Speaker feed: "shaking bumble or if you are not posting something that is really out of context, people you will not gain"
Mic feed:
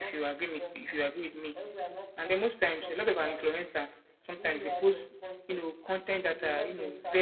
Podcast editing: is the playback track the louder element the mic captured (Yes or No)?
No